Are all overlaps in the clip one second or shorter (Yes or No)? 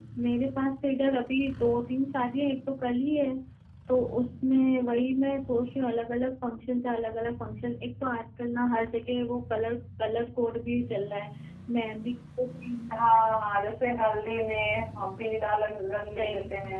Yes